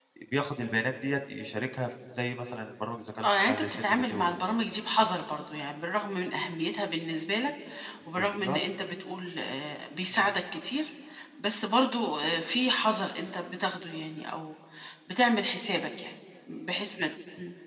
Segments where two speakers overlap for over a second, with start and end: 3.2-4.4

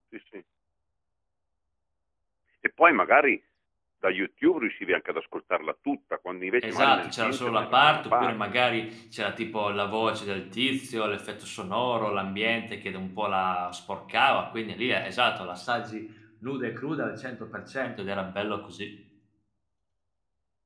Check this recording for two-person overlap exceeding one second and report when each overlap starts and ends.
6.6-8.3

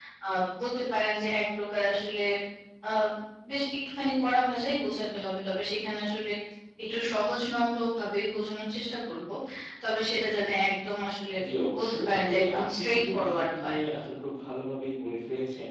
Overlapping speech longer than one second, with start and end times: 11.8-13.8

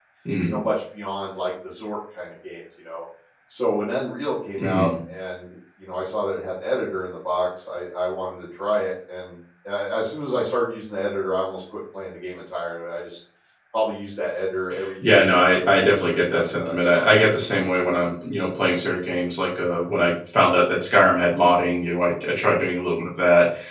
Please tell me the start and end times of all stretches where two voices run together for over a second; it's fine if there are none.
15.0-17.1

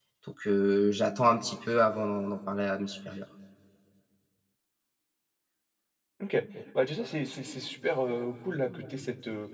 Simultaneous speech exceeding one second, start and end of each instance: none

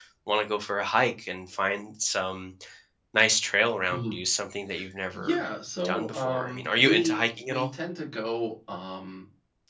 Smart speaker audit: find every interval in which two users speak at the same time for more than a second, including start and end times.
5.8-7.7

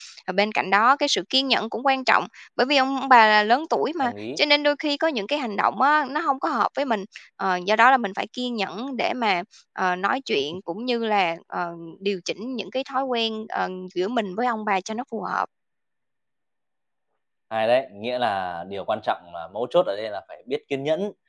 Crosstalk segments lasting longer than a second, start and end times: none

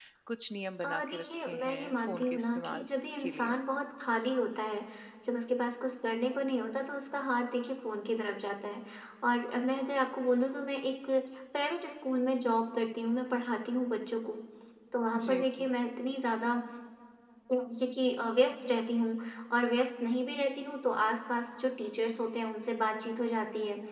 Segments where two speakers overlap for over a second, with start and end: 0.8-2.9

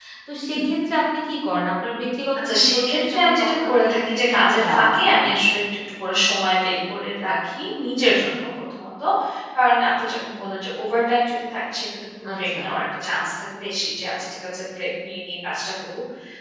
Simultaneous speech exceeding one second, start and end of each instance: 2.4-5.3

